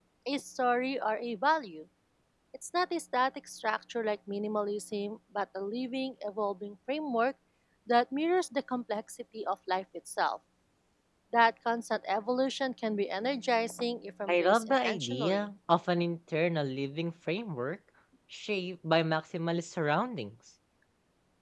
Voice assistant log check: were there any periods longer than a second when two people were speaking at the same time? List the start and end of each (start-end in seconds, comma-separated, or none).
14.3-15.5